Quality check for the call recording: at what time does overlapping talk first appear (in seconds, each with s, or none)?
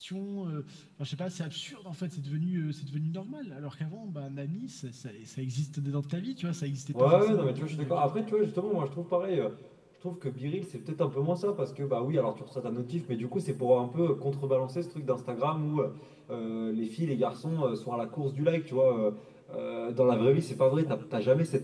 6.9 s